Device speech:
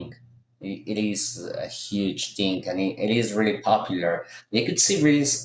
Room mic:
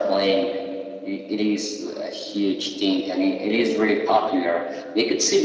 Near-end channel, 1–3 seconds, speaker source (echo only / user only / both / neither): echo only